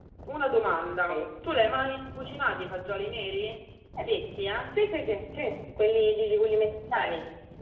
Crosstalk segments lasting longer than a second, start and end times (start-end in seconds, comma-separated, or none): none